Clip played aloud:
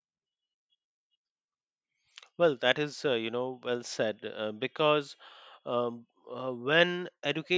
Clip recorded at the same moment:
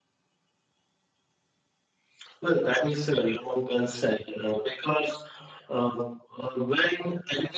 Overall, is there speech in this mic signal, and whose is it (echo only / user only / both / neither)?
echo only